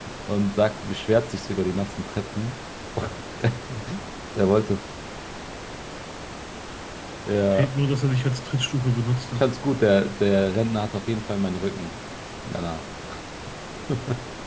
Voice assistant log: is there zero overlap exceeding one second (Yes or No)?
Yes